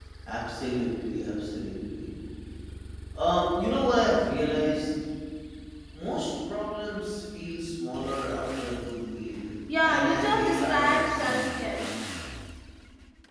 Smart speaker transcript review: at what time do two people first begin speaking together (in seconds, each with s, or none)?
9.8 s